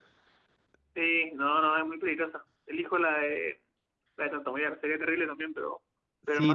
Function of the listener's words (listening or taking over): taking over